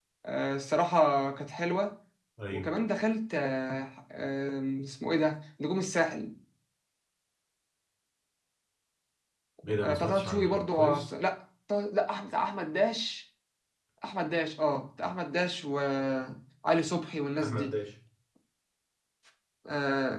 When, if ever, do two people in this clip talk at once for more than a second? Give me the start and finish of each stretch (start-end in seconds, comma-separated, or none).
9.8-11.1